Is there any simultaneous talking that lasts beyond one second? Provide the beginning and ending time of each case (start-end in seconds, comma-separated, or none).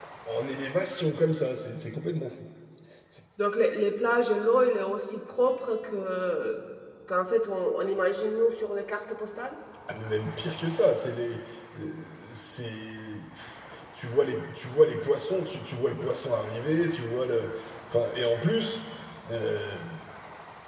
none